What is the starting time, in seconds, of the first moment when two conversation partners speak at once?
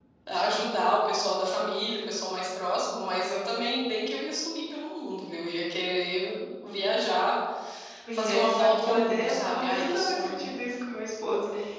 8 s

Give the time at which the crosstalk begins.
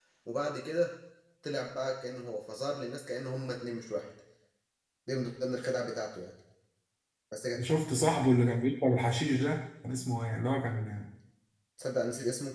none

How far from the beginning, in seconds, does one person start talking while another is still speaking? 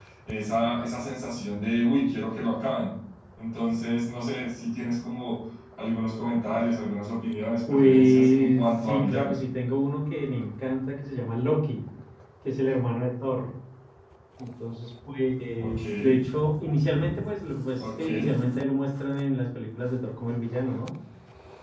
8 s

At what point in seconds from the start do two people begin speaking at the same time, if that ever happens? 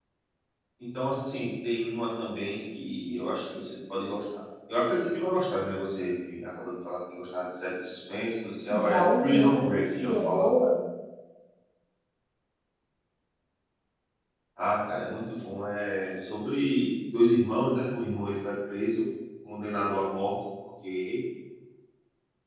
9 s

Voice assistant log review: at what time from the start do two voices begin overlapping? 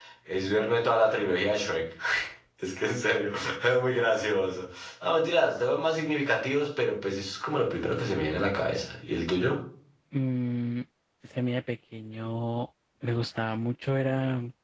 none

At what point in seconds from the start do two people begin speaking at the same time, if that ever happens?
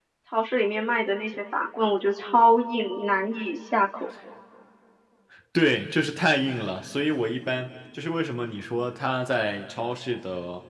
none

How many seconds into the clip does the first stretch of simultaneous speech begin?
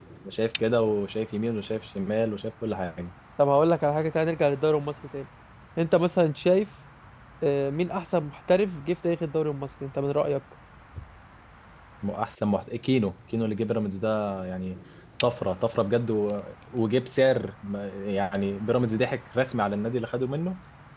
none

